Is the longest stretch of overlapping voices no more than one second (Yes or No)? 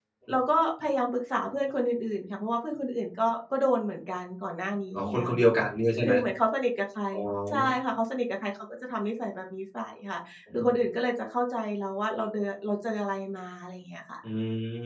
Yes